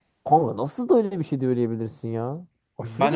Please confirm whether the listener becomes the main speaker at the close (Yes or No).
Yes